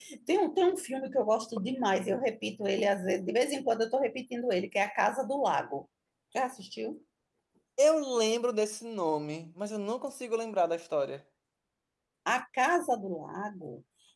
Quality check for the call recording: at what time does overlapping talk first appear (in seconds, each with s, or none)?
none